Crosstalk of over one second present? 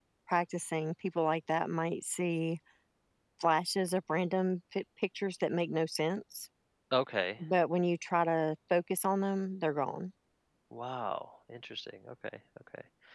No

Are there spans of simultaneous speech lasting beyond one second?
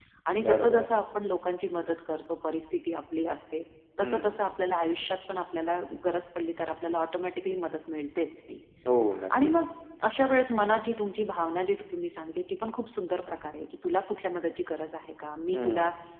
No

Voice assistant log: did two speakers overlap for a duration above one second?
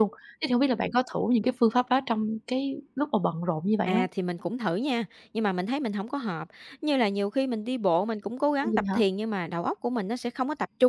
No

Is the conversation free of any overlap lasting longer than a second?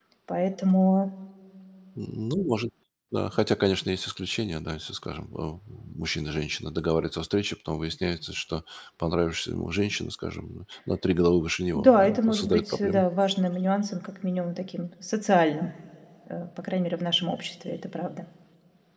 No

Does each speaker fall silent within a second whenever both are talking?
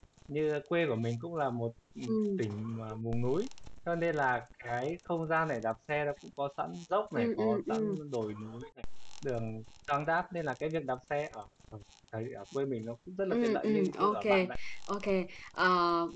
No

